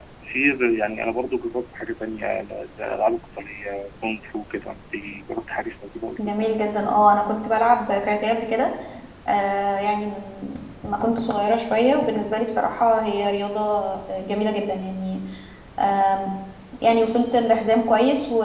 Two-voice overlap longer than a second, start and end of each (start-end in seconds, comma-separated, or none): none